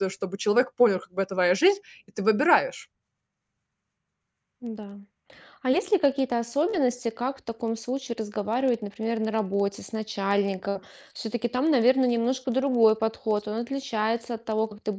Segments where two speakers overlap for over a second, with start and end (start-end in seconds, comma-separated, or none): none